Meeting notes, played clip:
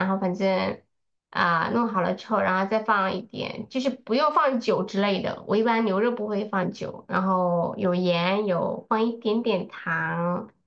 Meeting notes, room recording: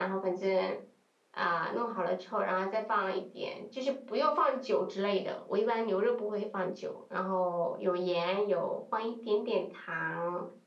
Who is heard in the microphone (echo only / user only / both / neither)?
echo only